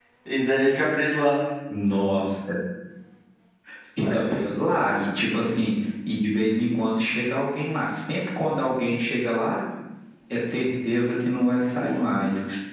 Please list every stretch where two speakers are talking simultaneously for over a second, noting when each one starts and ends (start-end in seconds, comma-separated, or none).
none